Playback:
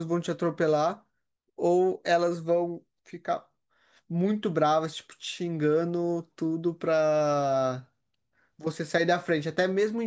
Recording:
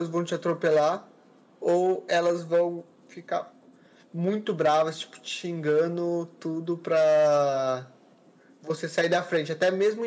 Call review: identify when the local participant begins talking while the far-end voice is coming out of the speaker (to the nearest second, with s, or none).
none